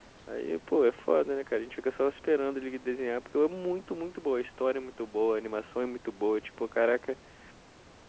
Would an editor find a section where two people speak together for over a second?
No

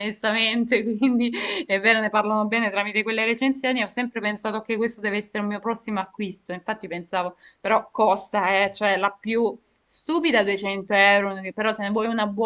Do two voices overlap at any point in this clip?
No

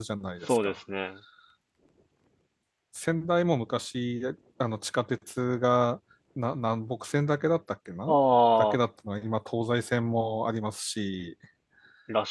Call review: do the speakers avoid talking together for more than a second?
Yes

